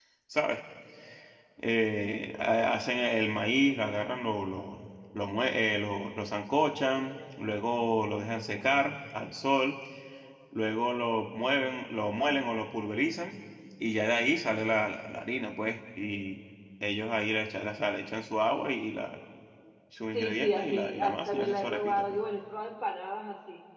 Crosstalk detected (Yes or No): Yes